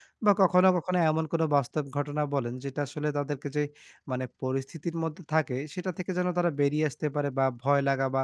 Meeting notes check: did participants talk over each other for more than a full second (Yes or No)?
No